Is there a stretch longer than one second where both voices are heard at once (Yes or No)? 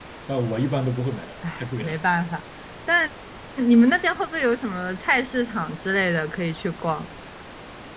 No